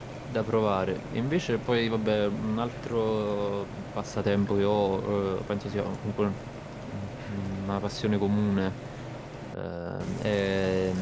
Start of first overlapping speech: none

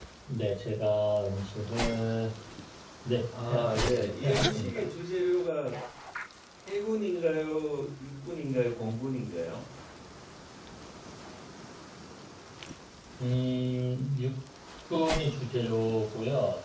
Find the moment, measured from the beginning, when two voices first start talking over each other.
3 s

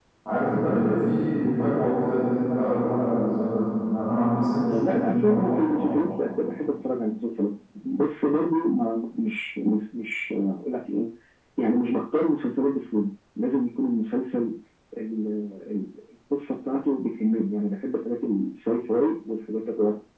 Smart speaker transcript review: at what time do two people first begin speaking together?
5 s

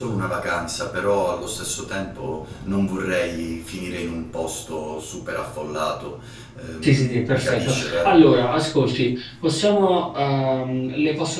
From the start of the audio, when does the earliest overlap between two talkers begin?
7 s

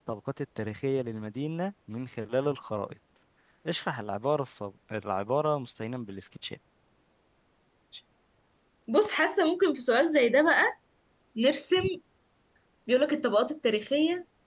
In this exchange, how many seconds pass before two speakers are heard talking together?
none

